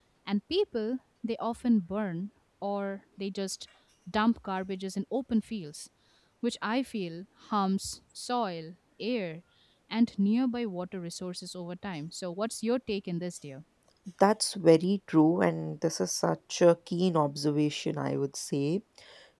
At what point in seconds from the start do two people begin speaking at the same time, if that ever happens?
none

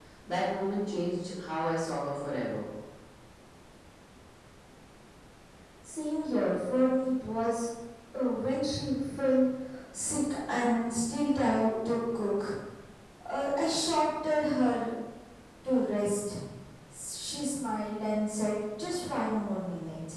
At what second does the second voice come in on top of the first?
none

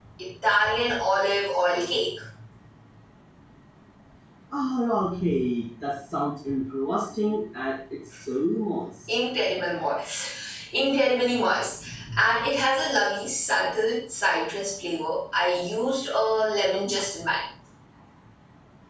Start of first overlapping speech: none

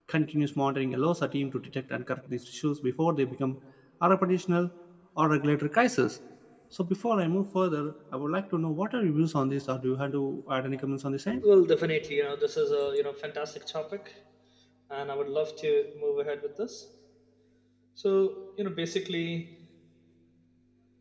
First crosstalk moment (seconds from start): none

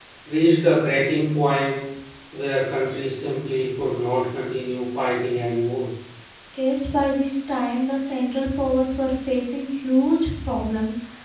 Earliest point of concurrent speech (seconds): none

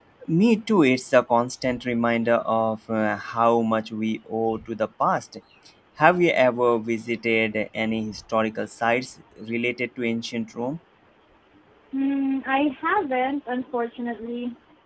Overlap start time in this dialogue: none

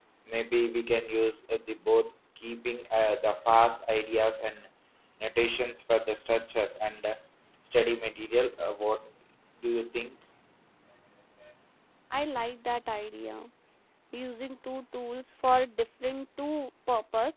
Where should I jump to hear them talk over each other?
none

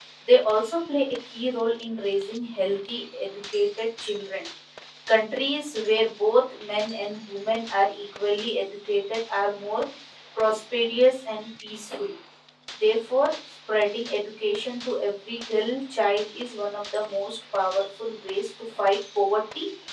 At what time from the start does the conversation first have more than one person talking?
none

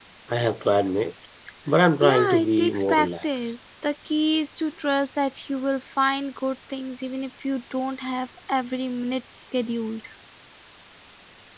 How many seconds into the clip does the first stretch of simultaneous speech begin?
2.0 s

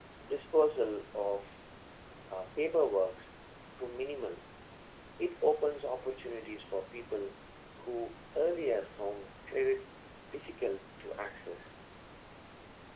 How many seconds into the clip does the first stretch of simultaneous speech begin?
none

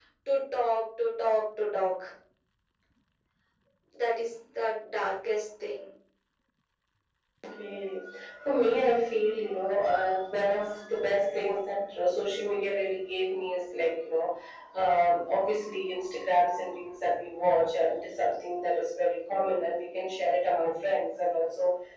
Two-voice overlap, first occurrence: none

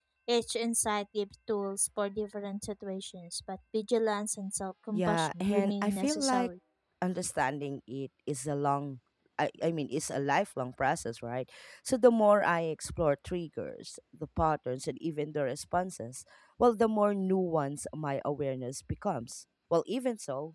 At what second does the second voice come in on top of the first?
4.9 s

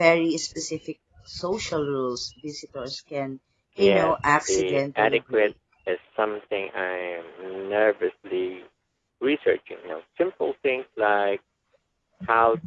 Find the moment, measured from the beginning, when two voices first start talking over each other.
3.8 s

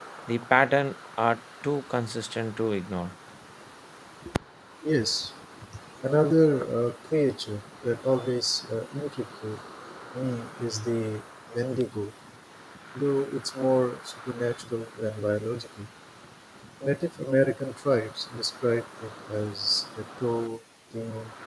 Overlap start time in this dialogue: none

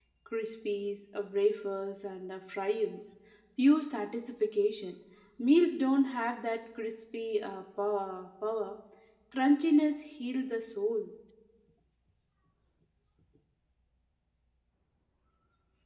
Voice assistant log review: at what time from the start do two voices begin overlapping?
none

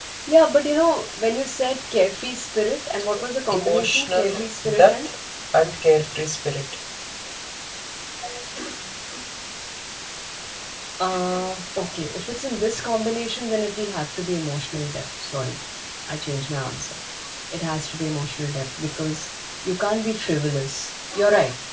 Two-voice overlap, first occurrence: 3.5 s

